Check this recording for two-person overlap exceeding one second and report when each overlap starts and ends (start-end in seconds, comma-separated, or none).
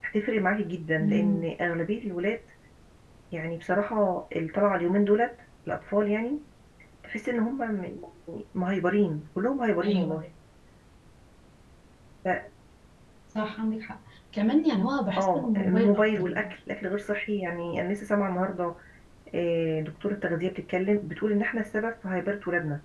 15.2-16.5